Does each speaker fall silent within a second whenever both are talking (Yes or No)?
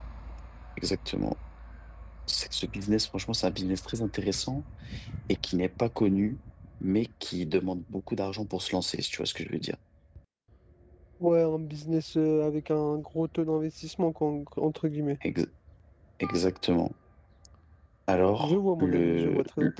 No